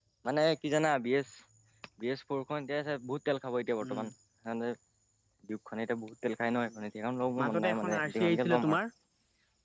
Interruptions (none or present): present